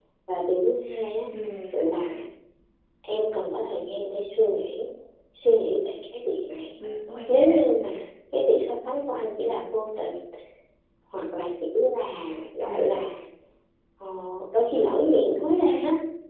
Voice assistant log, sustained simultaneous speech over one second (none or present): none